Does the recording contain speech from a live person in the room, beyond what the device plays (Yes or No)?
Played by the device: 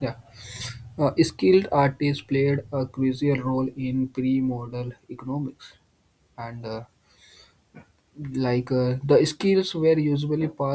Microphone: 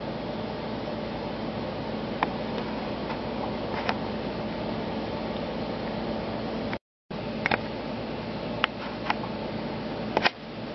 No